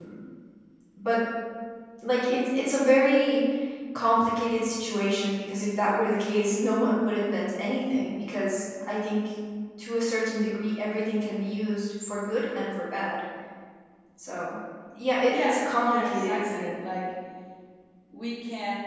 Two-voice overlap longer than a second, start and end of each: 15.3-16.7

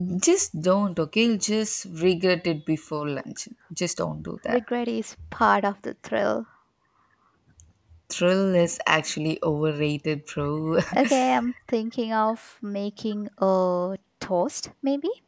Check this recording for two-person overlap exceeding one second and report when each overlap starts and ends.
none

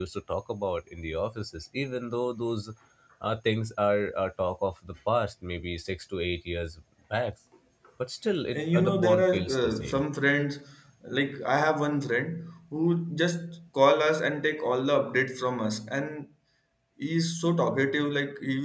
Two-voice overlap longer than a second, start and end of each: 8.5-10.0

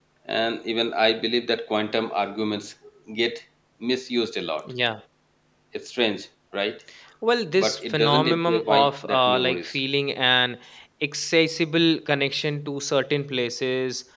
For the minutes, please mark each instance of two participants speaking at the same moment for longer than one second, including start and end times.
7.6-9.8

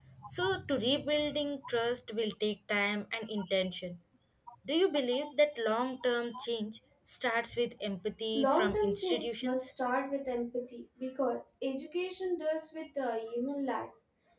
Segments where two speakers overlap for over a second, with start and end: 8.3-9.7

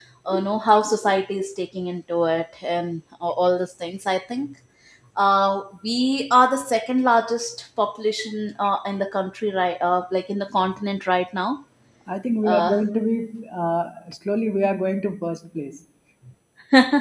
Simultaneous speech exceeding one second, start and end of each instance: none

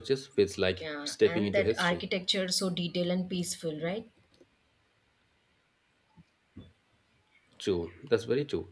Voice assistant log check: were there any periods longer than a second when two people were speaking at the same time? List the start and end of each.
0.8-2.0

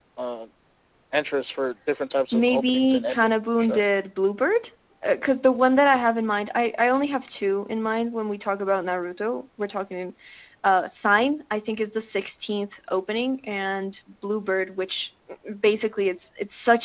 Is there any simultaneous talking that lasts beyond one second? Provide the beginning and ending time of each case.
2.3-3.8

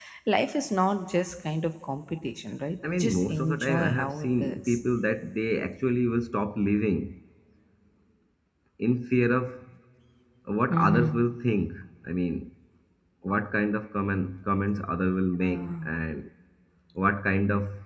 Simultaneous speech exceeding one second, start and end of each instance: 2.9-4.8

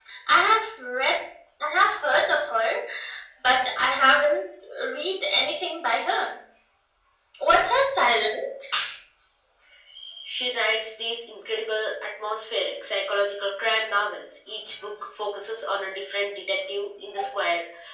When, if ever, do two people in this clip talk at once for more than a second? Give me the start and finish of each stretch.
none

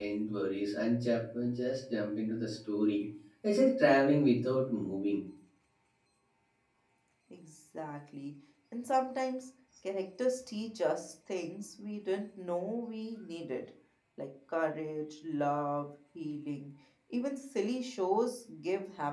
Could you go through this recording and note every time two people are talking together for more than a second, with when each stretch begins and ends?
none

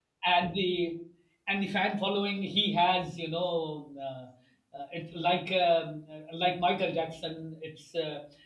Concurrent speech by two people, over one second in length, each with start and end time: none

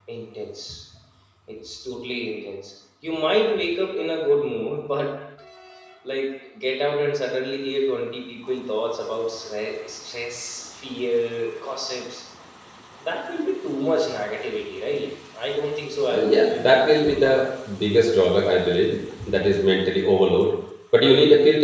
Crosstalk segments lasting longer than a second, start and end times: 16.0-17.4

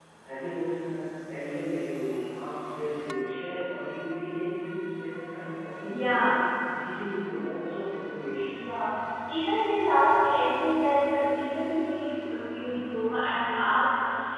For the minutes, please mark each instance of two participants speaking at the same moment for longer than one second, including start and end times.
none

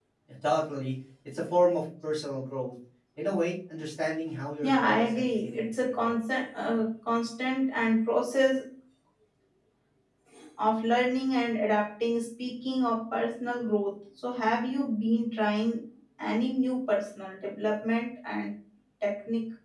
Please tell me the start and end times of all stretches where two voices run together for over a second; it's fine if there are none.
4.6-6.2

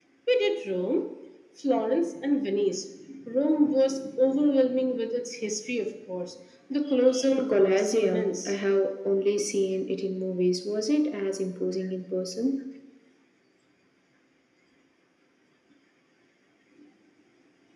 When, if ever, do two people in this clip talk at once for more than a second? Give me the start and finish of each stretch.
7.3-8.5

